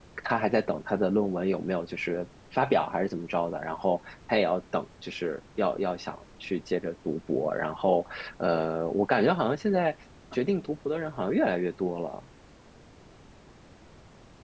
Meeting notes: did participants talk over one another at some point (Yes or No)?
No